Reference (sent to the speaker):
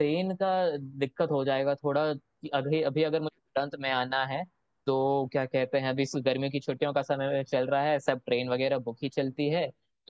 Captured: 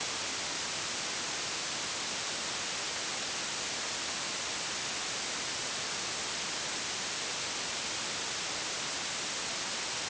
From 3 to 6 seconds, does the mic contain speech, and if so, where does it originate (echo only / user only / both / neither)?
neither